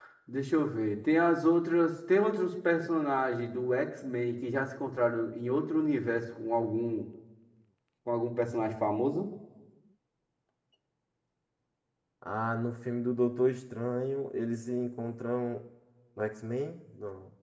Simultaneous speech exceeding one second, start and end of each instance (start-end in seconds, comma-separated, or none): none